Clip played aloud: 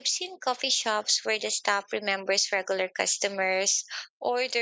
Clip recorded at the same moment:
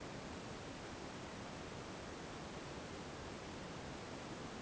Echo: none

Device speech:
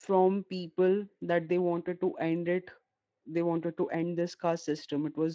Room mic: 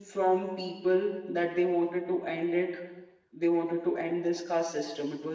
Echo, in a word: present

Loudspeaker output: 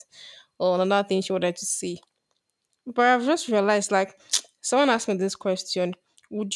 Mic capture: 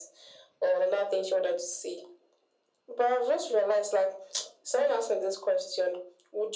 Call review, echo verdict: present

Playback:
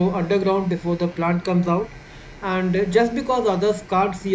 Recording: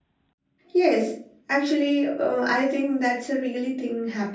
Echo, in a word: none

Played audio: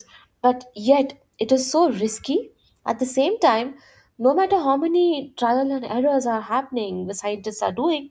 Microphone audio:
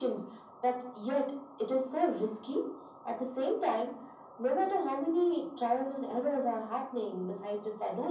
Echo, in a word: present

